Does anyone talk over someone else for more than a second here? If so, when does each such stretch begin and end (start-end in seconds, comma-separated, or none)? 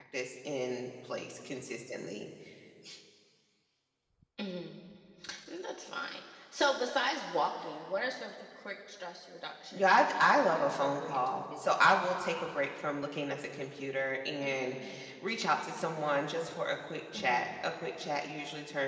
9.7-12.0